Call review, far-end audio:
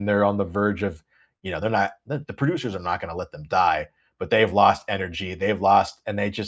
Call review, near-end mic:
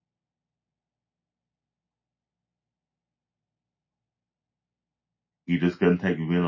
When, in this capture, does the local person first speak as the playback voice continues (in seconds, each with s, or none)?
5.5 s